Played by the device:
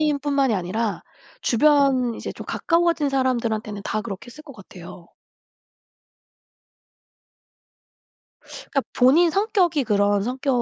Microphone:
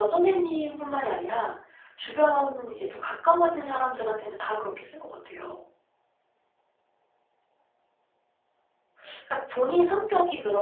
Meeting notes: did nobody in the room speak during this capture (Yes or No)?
Yes